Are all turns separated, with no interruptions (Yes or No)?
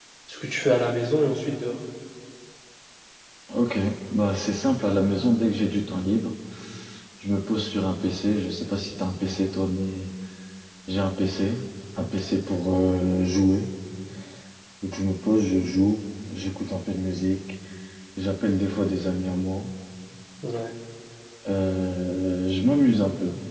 Yes